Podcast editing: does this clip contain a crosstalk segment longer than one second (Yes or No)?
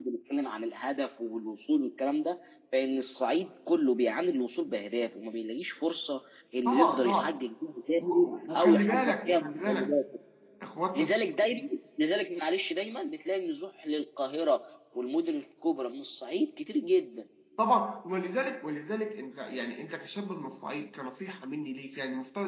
Yes